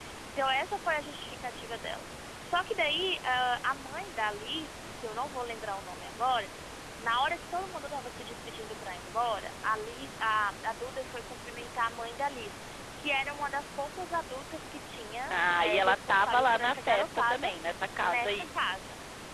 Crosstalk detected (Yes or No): Yes